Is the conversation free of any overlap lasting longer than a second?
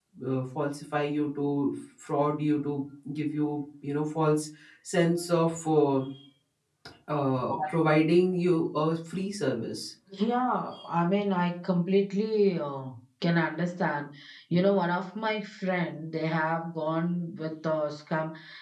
Yes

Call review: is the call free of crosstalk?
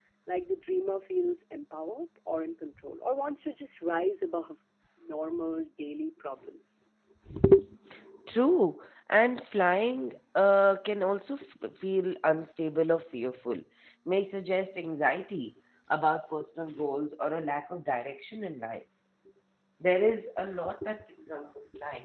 Yes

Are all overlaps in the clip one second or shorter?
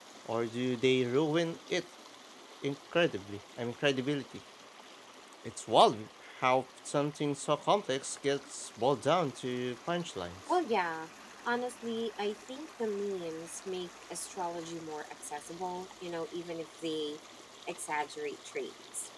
Yes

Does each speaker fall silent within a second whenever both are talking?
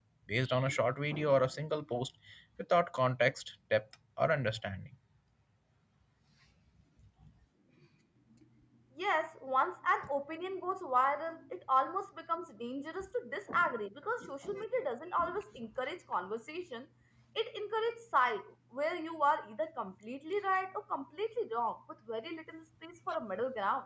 Yes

